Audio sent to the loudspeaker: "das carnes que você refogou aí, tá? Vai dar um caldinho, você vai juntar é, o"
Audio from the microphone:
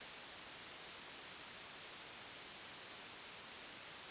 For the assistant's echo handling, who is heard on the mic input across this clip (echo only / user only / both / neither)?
neither